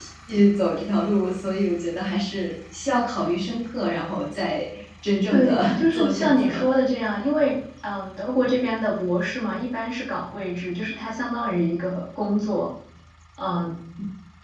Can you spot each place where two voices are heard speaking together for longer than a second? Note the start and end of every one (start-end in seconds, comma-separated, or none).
5.3-6.6